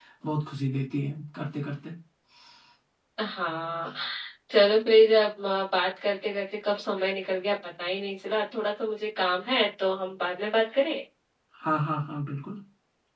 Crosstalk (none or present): none